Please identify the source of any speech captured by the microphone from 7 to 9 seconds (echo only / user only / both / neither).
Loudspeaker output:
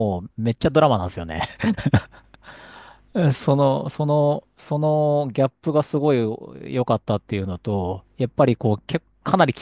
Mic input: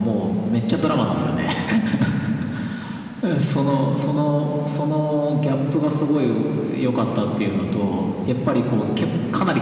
echo only